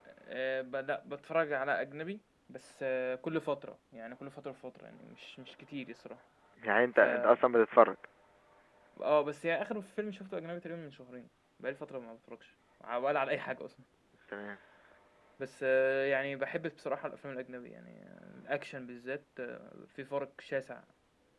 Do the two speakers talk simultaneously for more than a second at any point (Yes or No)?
No